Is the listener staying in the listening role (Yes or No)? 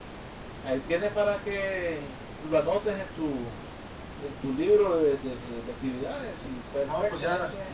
No